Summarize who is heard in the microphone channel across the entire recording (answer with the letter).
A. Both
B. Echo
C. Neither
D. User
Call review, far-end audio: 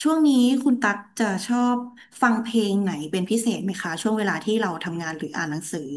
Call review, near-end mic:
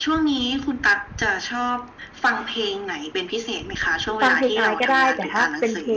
A